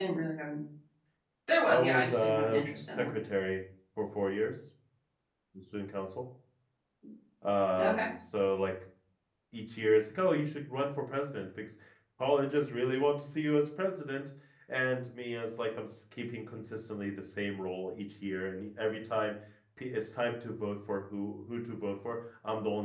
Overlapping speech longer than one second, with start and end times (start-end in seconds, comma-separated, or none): 1.7-3.1